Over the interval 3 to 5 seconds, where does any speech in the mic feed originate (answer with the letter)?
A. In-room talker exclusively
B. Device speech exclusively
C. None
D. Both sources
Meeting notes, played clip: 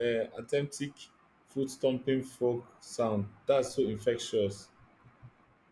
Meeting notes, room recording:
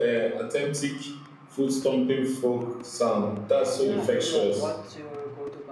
D